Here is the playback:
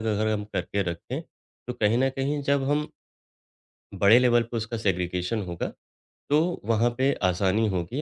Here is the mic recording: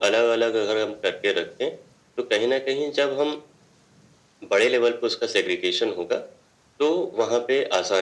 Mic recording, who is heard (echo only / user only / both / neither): echo only